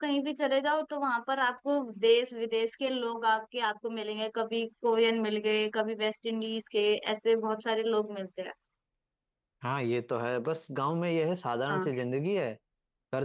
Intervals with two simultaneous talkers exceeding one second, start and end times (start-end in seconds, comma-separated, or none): none